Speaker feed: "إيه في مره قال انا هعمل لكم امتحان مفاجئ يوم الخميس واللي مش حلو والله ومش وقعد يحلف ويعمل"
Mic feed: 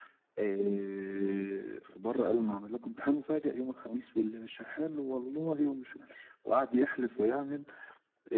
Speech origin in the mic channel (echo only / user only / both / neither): echo only